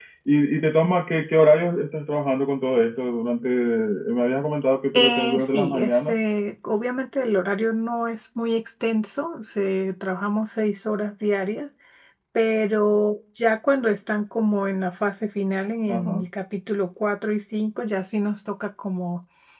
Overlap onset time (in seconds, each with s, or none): 4.9 s